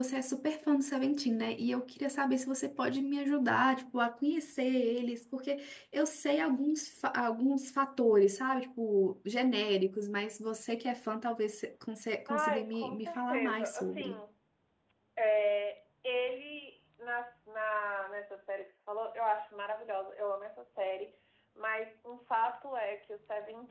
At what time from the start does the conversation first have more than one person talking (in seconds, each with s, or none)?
12.3 s